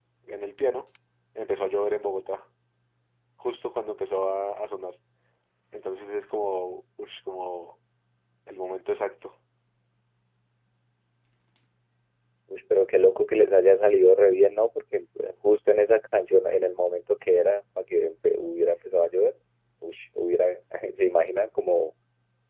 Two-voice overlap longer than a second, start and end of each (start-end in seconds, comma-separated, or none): none